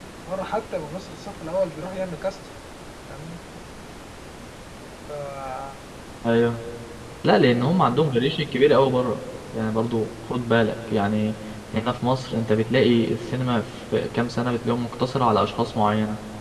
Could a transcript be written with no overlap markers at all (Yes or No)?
Yes